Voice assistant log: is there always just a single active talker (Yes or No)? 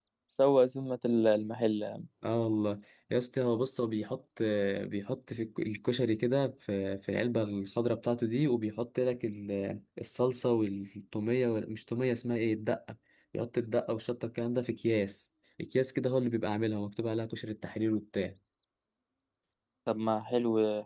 Yes